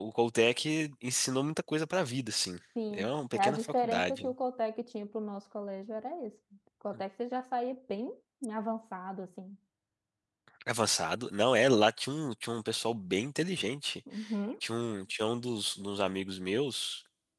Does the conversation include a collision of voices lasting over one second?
Yes, from 2.8 s

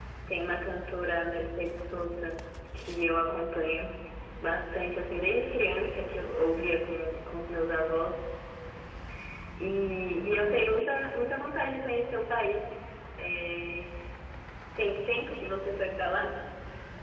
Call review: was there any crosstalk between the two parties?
No

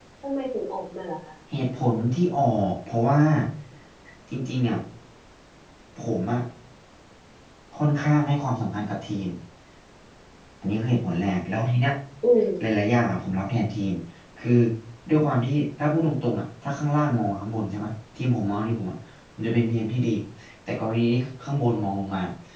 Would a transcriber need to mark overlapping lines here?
No

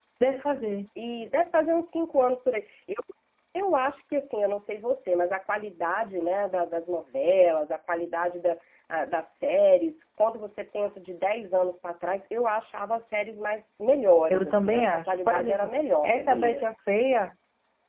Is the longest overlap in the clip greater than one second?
Yes, from 14.3 s

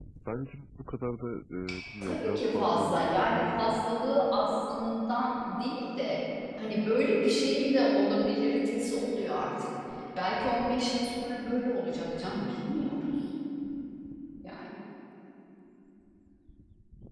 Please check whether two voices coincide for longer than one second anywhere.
Yes, from 2.0 s

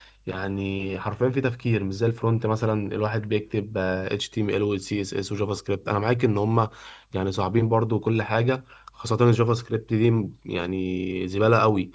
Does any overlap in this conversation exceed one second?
No

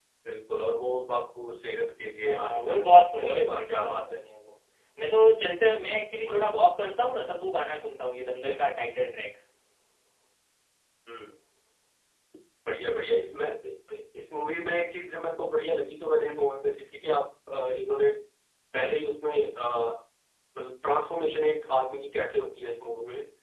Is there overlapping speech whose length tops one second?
Yes, from 2.2 s

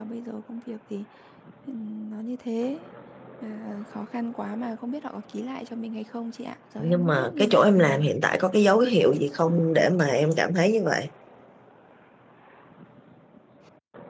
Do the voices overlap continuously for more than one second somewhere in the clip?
Yes, from 6.8 s

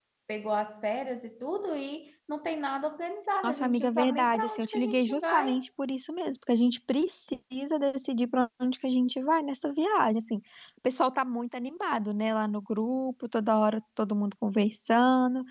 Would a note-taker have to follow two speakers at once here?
Yes, from 3.4 s

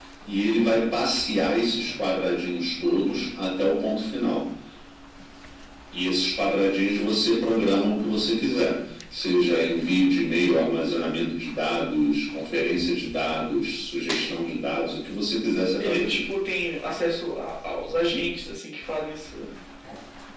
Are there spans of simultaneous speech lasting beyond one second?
No

